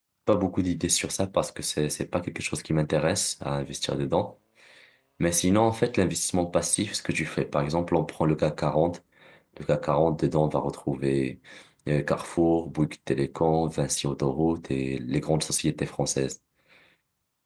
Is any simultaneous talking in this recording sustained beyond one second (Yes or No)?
No